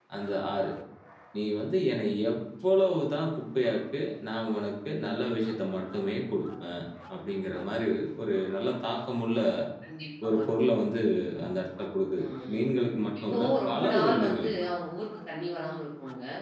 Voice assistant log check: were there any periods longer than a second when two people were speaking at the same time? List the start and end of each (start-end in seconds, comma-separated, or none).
13.3-14.5